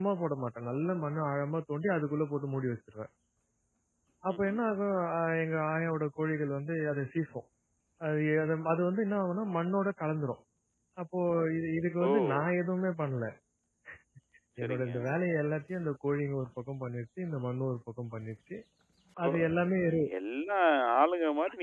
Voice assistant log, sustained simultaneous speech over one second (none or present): none